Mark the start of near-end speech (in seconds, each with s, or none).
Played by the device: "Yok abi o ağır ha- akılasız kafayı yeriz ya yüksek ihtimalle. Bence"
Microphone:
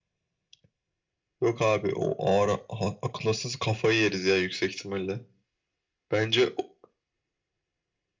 none